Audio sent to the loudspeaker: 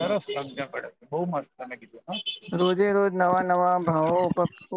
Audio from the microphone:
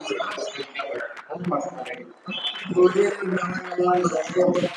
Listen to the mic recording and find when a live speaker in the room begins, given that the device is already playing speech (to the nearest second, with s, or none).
none